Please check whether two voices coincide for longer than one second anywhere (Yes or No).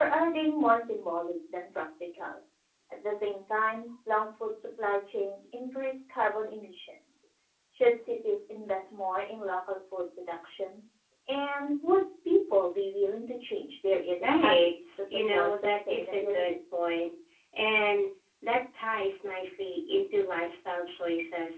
Yes